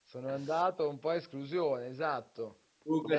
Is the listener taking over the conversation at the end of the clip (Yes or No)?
Yes